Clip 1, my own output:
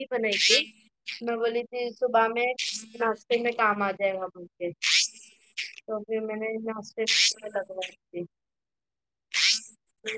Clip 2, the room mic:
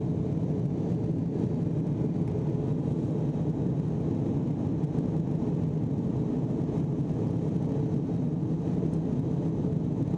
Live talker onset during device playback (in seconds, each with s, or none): none